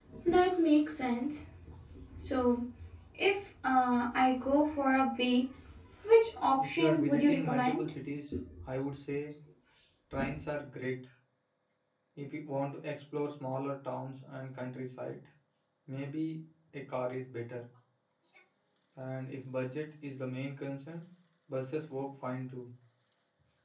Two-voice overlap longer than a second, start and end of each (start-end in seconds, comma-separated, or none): 6.6-7.8